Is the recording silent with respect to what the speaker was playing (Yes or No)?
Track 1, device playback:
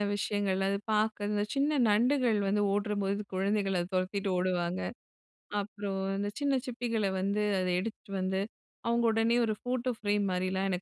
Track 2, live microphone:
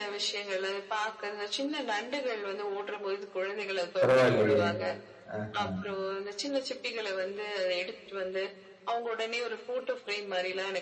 No